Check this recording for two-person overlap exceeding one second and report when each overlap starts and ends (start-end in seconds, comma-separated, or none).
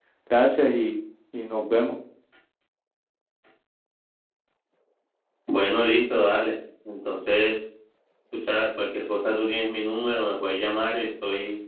none